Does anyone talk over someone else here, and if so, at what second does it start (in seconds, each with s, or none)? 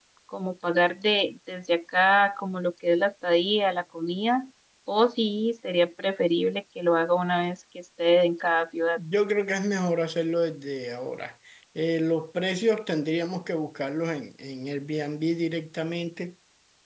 none